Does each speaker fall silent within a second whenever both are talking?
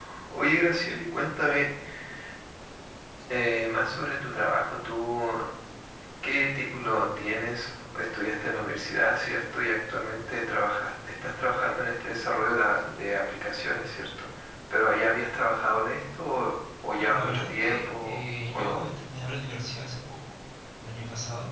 No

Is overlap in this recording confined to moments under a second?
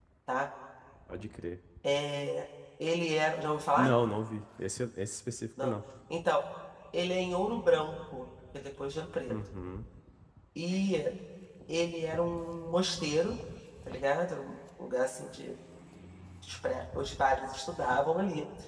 Yes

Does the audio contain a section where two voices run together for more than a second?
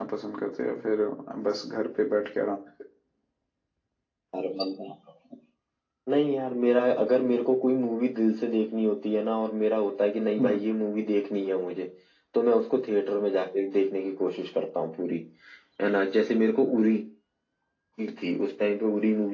No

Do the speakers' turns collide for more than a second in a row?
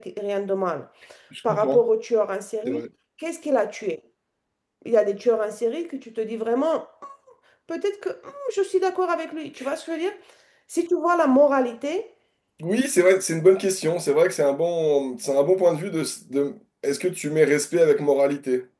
No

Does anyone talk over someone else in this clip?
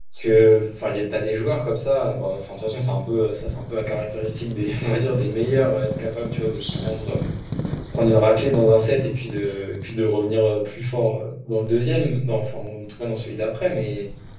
No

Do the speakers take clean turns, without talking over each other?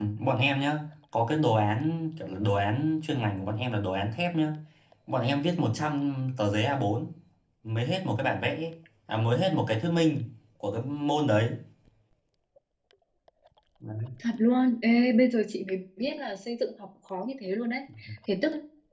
Yes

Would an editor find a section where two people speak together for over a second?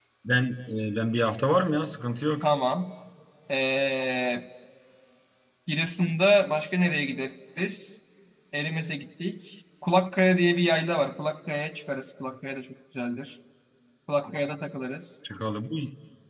No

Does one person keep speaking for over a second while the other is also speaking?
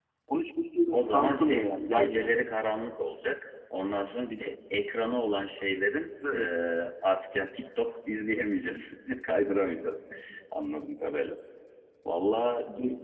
Yes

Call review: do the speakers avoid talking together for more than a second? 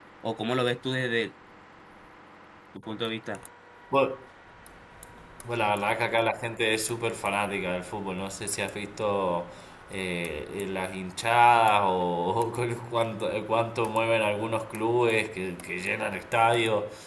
Yes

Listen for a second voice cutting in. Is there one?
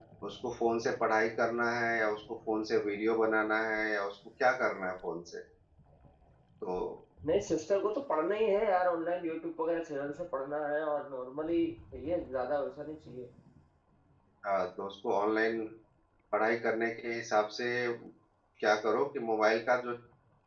No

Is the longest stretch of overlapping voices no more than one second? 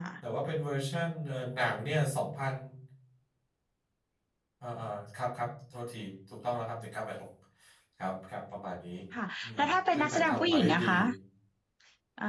No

